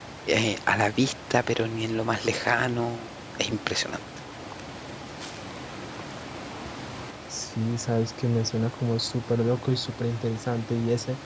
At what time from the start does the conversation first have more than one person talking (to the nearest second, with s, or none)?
none